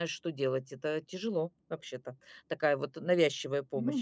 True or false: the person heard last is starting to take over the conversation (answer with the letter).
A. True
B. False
A